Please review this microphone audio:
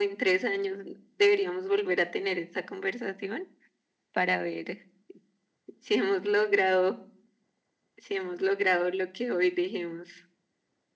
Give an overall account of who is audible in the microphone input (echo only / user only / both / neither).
echo only